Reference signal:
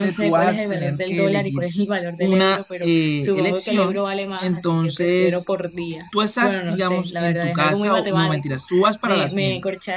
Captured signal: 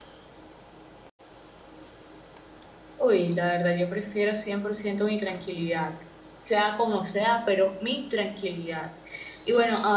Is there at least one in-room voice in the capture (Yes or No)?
Yes